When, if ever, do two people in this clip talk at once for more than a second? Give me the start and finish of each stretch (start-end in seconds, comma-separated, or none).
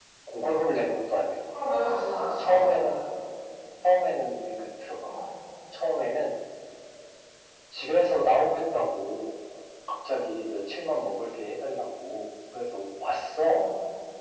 none